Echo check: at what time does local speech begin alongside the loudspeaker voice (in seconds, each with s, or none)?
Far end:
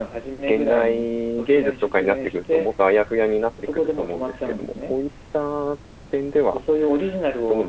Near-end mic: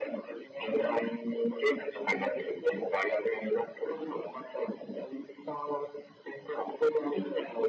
none